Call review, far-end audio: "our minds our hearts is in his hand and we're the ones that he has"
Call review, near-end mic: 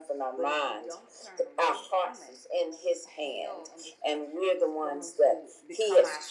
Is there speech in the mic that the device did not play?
Yes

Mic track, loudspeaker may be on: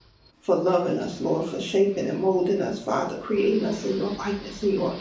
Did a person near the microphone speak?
Yes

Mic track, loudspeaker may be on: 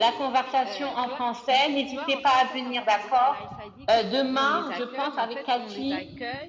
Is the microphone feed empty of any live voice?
No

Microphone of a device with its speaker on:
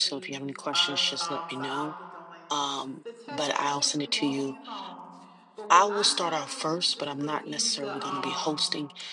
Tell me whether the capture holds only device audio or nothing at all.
No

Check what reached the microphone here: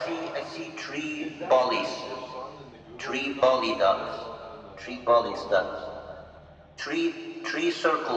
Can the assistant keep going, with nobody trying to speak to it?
No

